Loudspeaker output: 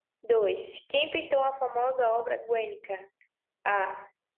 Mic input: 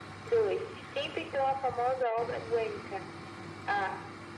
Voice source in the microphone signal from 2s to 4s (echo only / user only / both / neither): echo only